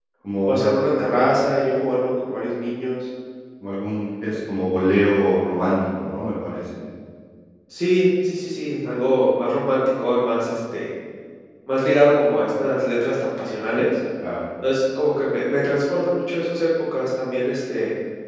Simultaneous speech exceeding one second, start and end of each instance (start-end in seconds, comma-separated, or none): none